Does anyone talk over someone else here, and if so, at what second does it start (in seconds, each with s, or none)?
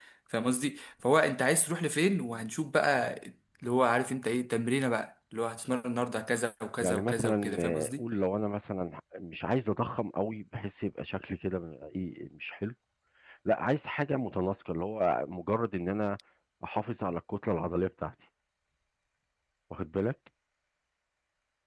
6.8 s